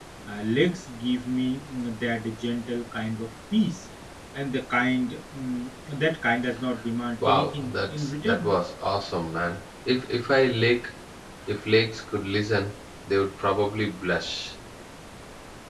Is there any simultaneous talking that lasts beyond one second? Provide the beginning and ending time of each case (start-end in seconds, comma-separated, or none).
7.2-8.5